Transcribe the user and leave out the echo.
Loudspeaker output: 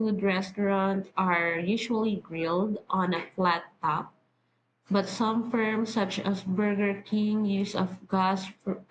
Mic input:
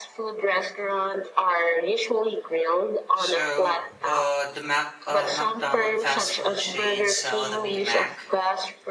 So, uh, the Mac uh, McDonald fast food chain sell the Big Mac,

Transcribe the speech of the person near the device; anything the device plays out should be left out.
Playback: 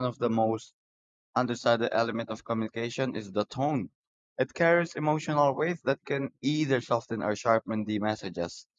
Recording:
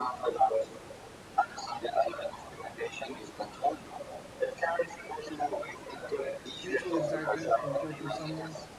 mutual excitement, comforting someone

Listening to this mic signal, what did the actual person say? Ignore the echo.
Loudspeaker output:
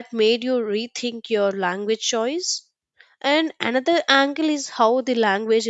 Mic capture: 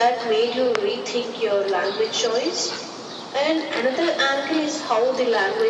none

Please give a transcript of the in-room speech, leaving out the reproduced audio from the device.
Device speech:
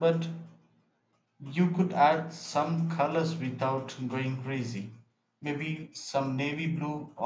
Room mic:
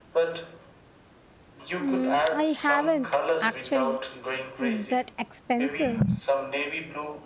Mm, I haven't actually. Is that expensive?

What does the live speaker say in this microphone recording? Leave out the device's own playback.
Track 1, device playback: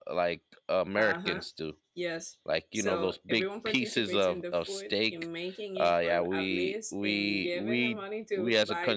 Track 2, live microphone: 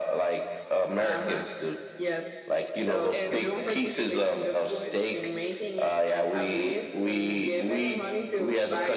And

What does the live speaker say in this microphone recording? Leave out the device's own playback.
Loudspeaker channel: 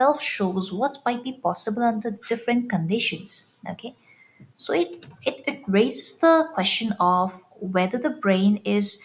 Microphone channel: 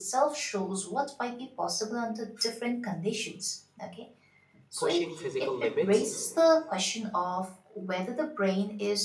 pushing physical limits.

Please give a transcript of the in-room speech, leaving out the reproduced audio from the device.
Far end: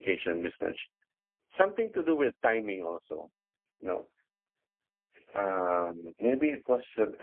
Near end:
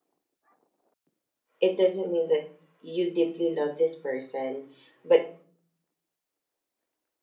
it doesn't mean that you deeply love this person, but

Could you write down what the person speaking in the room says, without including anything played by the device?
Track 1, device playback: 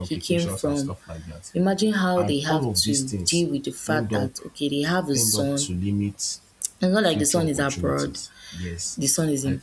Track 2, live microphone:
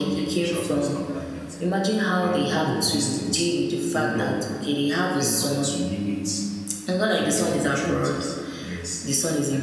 none

